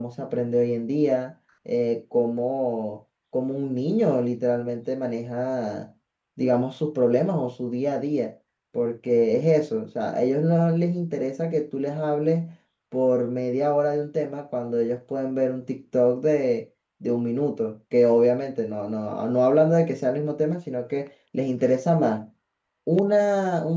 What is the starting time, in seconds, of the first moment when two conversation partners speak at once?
none

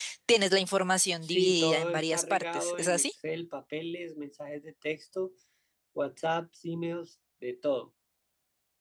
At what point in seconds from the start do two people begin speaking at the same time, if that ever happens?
1.2 s

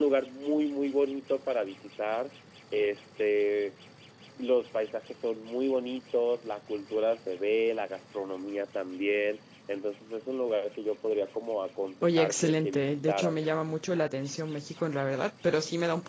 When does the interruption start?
12.0 s

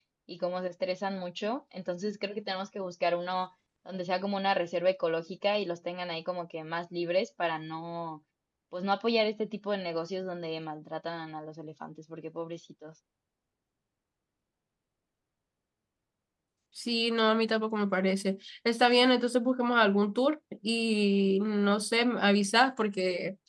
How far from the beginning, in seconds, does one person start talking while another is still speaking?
none

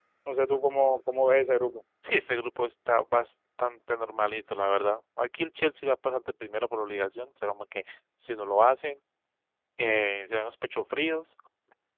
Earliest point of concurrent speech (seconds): none

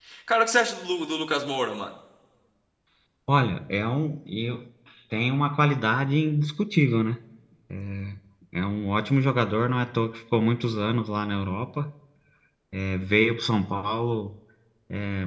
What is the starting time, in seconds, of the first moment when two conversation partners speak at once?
none

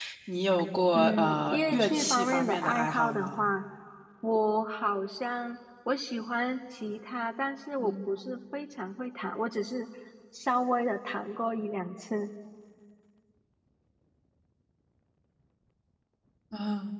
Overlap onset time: 0.9 s

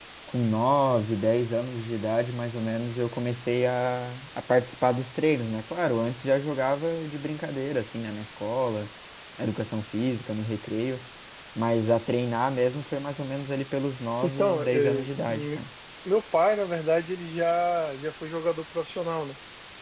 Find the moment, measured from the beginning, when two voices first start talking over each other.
14.2 s

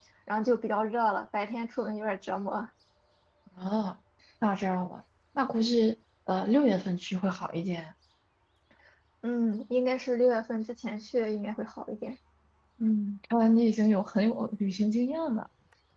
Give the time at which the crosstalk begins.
none

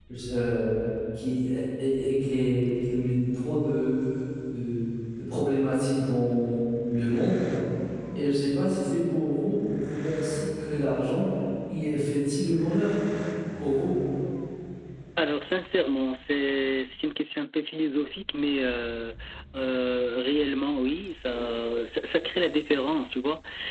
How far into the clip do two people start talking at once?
none

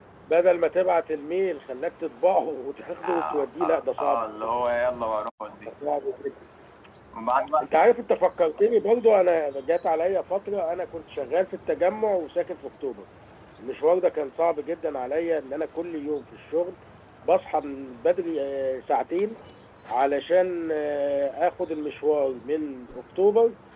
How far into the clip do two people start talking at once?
3.0 s

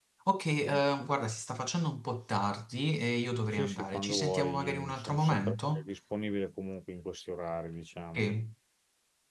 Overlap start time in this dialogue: 3.5 s

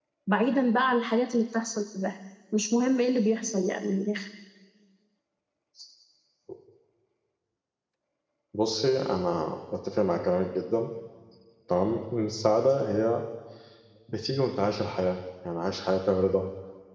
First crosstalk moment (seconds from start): none

